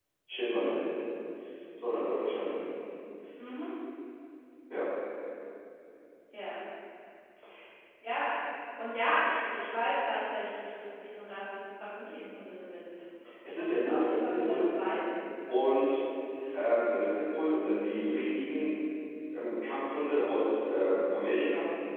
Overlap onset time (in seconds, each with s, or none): 13.5 s